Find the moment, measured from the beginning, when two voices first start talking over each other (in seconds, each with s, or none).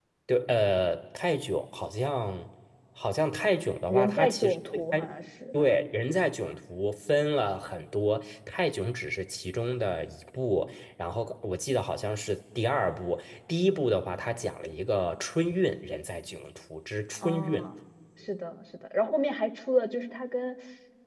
3.9 s